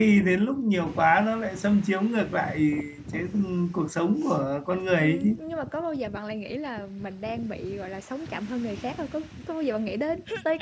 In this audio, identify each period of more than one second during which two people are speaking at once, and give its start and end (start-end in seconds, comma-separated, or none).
none